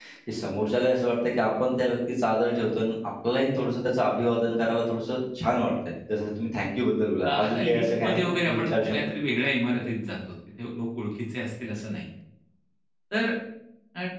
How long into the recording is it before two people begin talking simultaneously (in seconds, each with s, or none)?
7.2 s